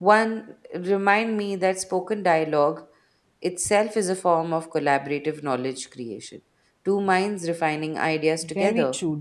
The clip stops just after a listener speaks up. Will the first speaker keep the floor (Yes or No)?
No